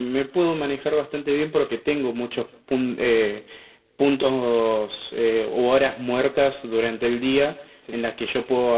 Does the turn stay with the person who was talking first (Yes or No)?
Yes